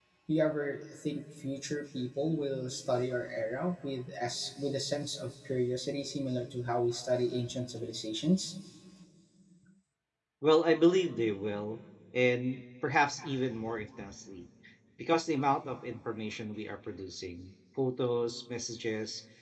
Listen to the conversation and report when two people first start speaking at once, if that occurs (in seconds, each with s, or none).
none